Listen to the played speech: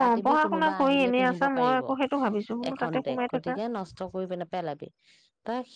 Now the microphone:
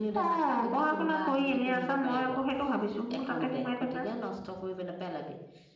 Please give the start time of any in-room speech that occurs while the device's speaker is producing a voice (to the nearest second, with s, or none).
none